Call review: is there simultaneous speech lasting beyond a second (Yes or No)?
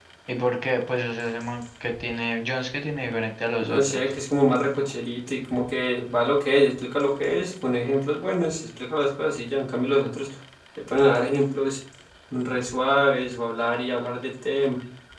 No